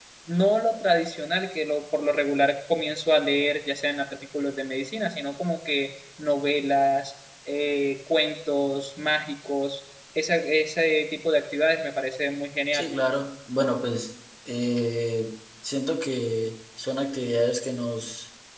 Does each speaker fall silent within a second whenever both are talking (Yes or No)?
Yes